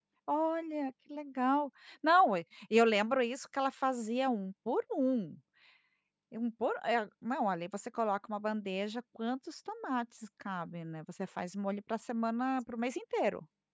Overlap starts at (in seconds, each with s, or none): none